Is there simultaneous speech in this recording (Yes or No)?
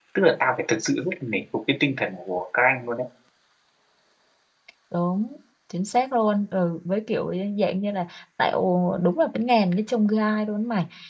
No